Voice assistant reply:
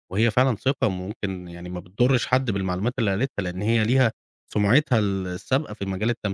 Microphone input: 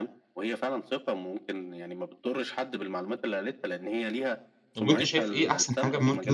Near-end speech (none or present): present